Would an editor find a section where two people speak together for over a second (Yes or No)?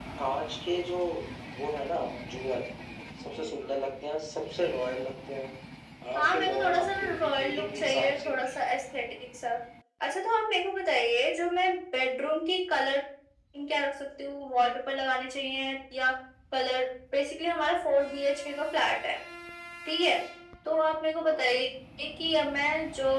Yes